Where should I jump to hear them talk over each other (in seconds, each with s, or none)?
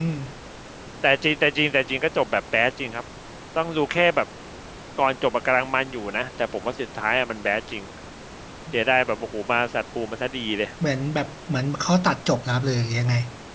none